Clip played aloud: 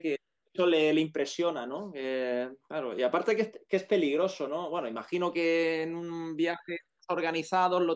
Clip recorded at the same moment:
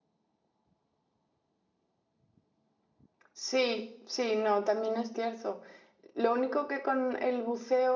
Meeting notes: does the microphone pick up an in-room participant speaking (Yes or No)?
Yes